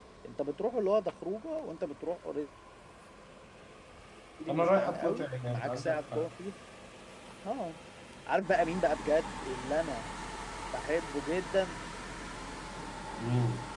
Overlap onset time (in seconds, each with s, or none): 4.5 s